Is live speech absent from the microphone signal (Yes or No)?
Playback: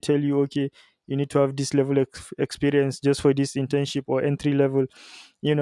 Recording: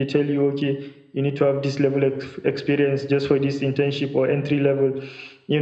Yes